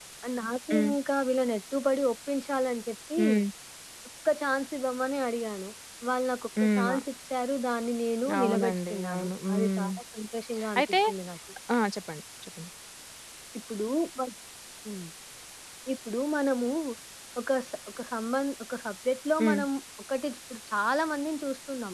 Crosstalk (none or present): present